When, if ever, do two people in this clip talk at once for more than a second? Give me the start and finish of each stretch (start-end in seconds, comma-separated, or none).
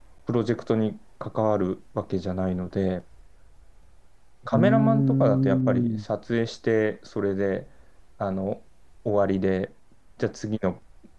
4.5-6.0